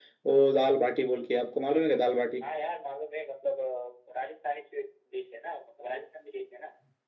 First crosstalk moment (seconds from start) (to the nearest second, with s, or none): none